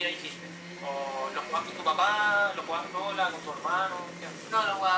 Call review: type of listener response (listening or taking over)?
taking over